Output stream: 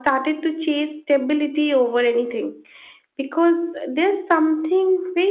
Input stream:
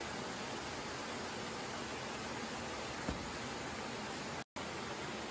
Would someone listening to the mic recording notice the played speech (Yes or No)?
No